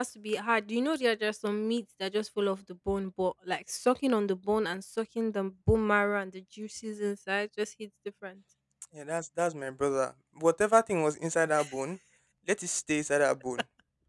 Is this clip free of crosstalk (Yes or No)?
Yes